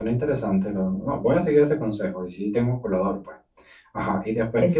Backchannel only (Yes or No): Yes